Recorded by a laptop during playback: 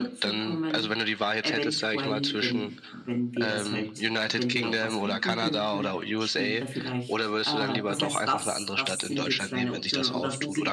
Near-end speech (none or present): present